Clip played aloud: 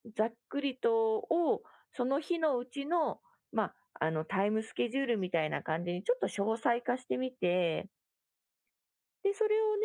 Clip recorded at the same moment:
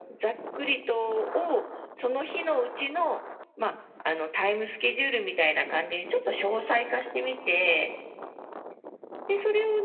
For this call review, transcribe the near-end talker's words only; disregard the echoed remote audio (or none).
none